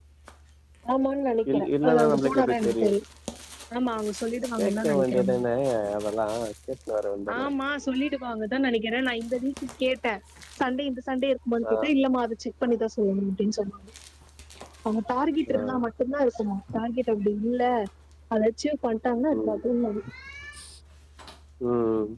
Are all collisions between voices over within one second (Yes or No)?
No